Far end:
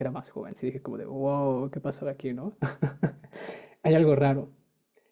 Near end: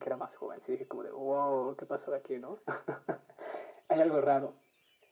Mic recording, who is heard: echo only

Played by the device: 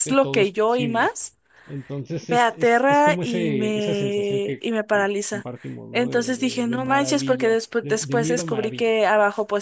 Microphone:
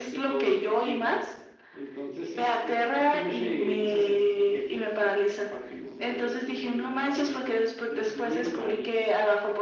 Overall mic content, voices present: echo only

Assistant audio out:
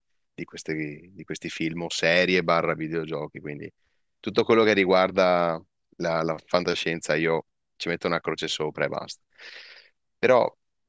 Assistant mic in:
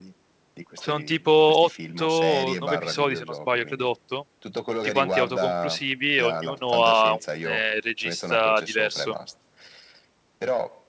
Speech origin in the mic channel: both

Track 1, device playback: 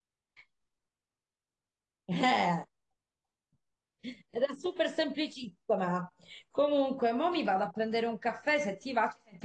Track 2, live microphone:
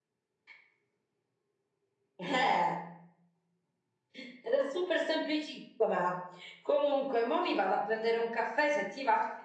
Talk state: echo only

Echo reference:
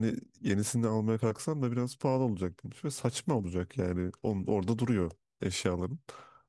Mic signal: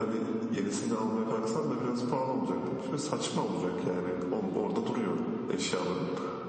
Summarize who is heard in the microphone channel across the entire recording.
echo only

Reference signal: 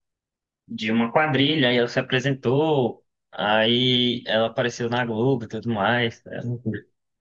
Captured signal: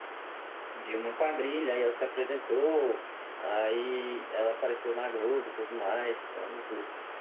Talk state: echo only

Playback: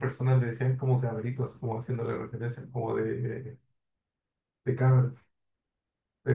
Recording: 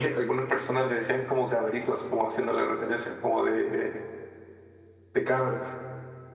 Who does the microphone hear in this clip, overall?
echo only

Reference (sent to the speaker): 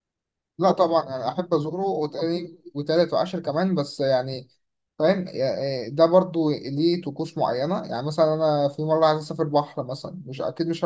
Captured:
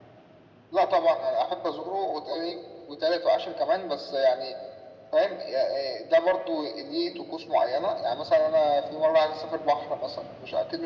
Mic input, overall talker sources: echo only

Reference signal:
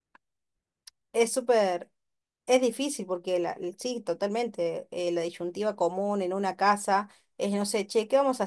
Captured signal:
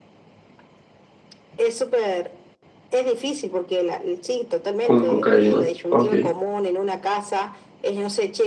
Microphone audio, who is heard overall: both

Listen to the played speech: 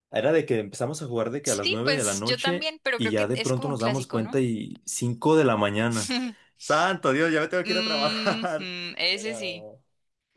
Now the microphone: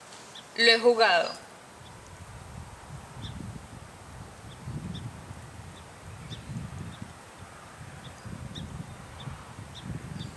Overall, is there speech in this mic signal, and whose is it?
user only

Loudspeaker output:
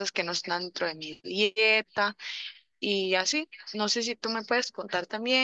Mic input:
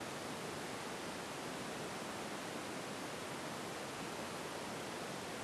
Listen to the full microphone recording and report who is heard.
neither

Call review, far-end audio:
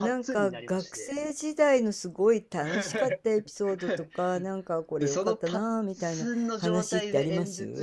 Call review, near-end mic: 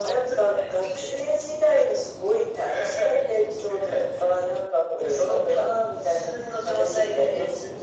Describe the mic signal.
echo only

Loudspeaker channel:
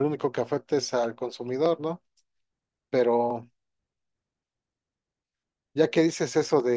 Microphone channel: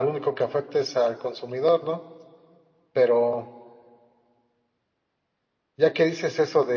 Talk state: echo only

